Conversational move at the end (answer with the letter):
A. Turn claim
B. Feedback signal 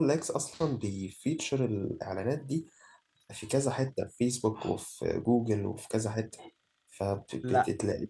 B